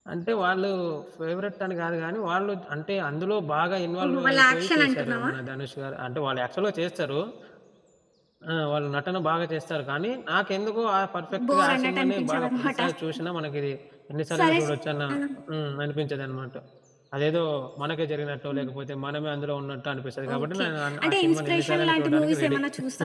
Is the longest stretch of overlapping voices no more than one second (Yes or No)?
No